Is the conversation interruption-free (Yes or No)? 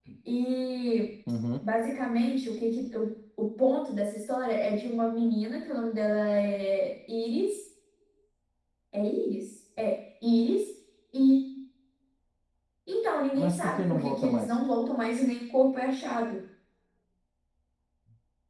No